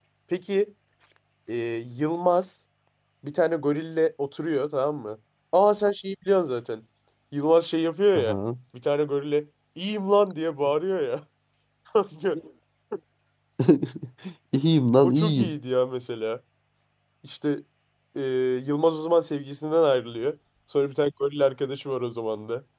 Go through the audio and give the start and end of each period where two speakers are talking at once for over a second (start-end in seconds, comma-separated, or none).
none